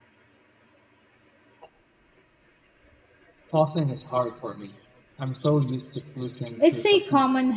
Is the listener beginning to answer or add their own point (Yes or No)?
Yes